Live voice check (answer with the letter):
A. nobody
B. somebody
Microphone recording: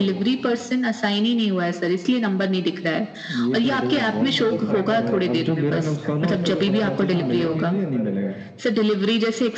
B